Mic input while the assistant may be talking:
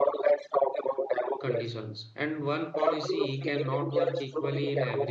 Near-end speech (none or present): present